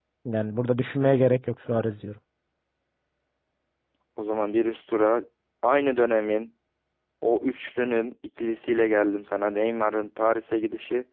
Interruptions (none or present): none